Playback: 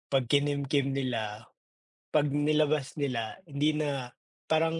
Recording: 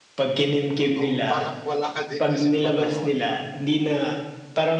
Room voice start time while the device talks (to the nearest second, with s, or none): 1 s